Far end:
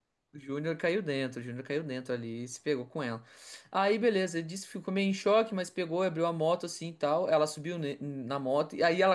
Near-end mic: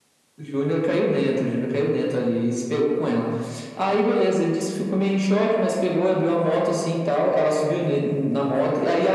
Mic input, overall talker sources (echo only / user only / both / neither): echo only